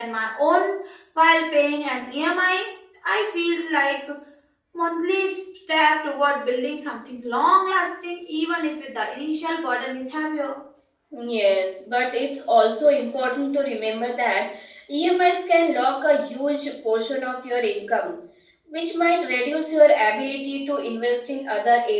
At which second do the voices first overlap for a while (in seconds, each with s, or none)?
none